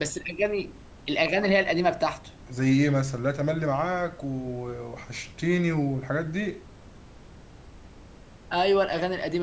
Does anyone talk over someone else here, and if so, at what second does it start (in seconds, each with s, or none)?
none